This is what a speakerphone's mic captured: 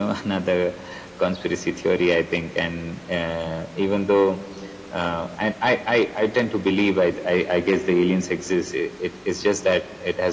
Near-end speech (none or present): none